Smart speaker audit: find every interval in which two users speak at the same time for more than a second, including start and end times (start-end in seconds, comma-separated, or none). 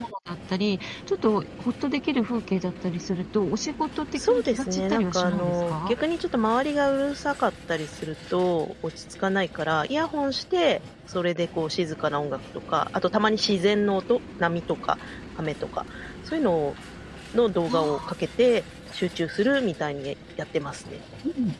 4.3-6.0